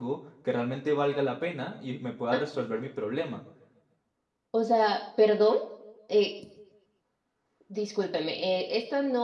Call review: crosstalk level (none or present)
none